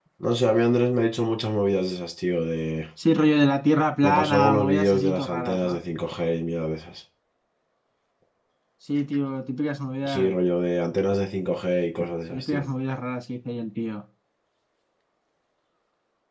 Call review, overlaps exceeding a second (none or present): present